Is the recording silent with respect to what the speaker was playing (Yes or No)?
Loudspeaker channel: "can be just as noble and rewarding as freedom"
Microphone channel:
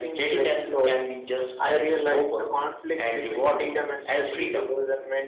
No